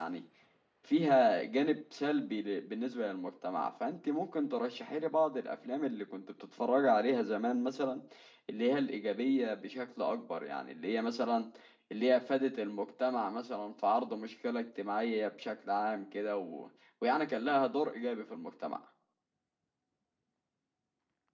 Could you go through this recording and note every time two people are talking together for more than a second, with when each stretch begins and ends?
none

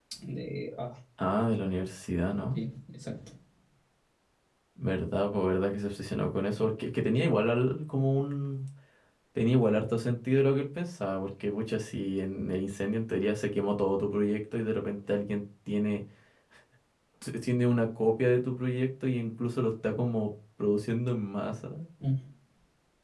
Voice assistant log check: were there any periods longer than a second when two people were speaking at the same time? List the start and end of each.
none

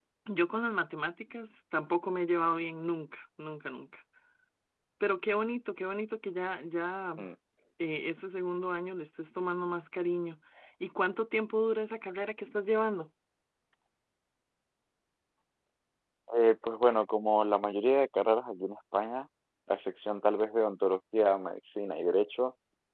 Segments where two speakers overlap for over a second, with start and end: none

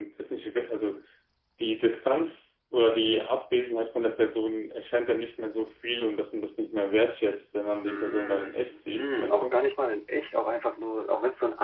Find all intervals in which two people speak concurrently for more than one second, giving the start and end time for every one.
7.9-9.6

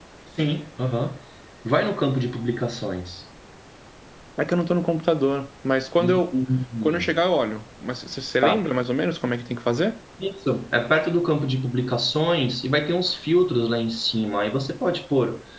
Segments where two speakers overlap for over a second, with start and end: none

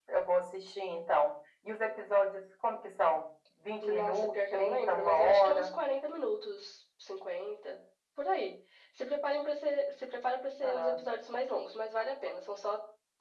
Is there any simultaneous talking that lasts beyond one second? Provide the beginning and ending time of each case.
3.8-5.7

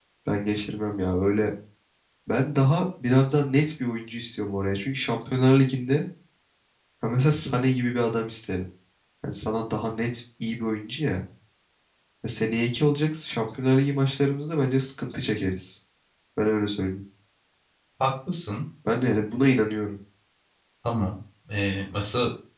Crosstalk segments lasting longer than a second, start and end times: none

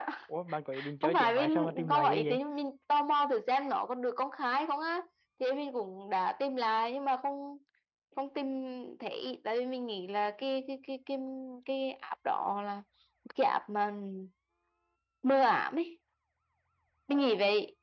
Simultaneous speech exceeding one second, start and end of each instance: 1.0-2.4

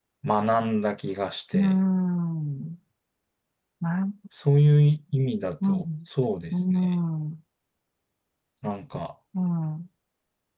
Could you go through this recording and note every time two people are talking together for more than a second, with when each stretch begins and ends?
none

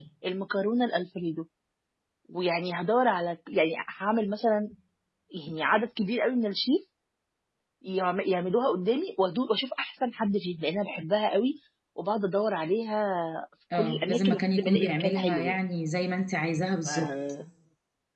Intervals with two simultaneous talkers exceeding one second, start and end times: 13.7-15.6

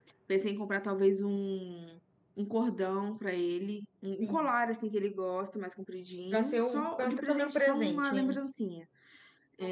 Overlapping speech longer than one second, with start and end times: 6.3-8.4

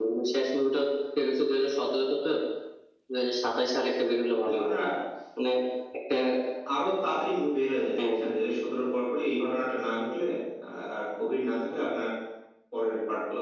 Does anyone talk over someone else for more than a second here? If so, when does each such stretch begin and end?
none

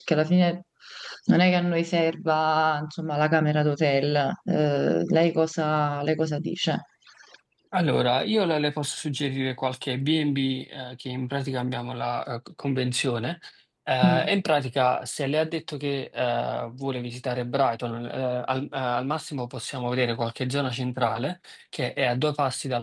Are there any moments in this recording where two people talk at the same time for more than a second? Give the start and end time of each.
none

